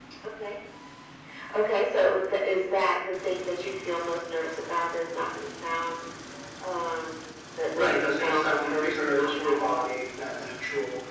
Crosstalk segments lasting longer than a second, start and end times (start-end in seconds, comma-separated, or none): 7.7-9.9